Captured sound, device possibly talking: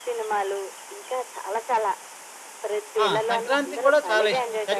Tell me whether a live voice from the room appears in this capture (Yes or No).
Yes